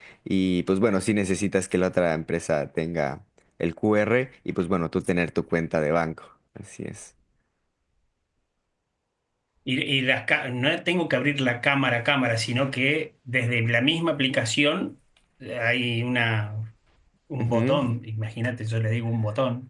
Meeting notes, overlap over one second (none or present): none